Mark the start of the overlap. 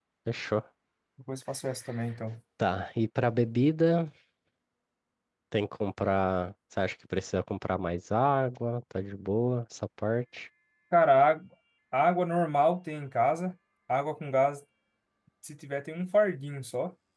none

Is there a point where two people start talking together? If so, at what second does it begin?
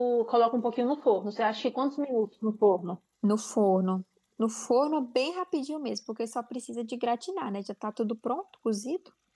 none

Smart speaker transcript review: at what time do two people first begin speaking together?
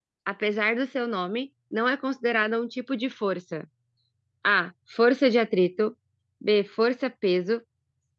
none

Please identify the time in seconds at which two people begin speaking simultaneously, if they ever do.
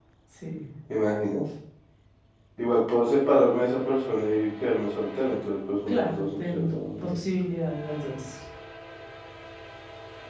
5.9 s

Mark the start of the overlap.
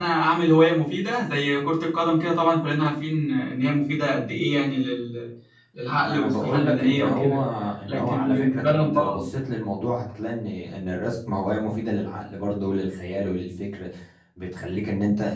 6.0 s

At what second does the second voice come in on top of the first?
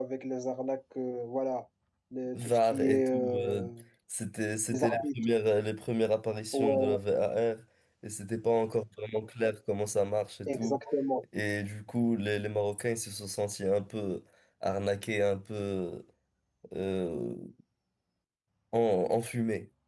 2.4 s

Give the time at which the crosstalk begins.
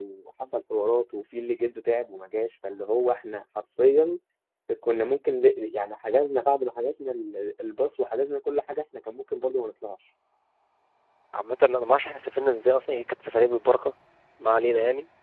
none

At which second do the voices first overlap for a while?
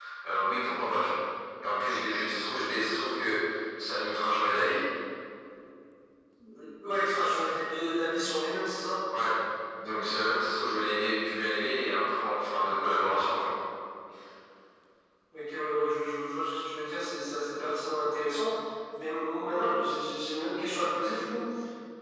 none

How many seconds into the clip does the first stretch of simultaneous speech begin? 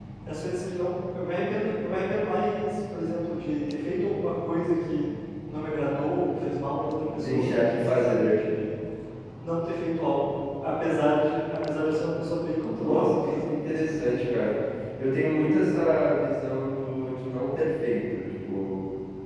7.1 s

